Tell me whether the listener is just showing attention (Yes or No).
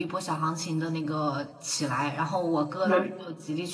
Yes